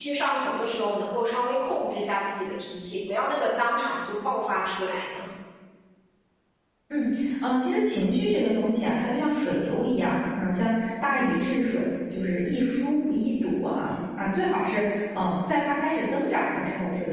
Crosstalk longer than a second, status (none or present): none